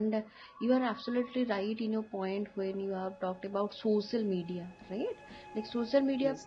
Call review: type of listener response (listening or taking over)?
listening